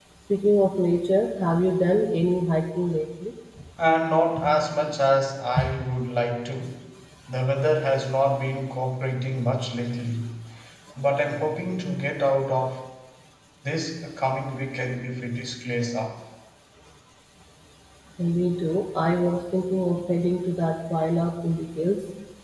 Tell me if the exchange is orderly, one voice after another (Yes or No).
Yes